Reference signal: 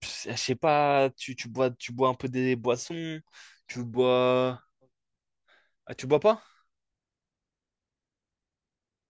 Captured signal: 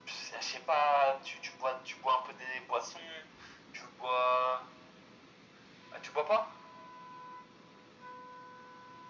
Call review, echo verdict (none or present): present